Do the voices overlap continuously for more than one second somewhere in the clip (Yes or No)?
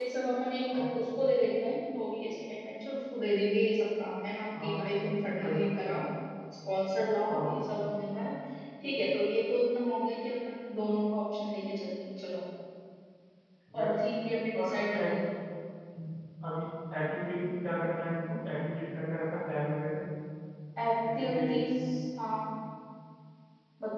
No